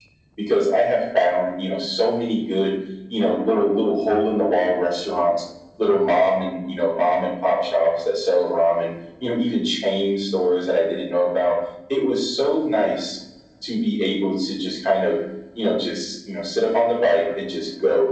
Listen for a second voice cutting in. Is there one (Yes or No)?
No